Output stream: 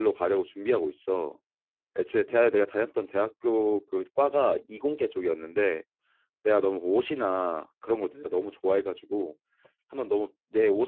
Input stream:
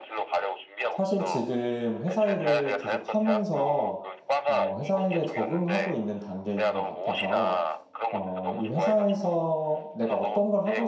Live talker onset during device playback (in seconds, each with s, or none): 0.9 s